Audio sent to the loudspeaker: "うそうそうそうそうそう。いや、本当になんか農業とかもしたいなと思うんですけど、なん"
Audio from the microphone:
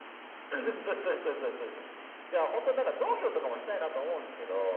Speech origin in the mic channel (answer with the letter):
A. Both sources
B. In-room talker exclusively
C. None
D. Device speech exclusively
D